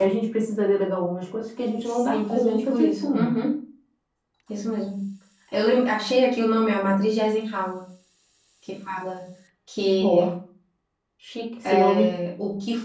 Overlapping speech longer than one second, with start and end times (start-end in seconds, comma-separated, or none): 1.8-3.3